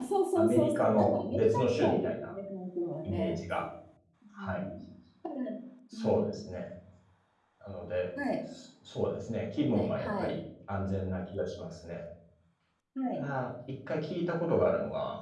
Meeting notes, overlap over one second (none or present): present